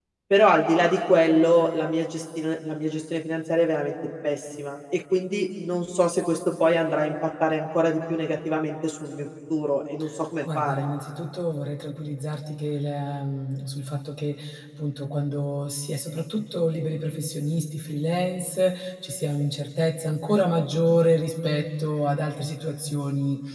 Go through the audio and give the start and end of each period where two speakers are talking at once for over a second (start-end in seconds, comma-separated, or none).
none